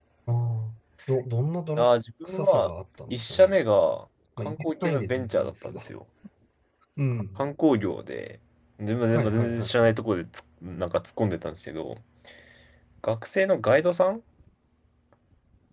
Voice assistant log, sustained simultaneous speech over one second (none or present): present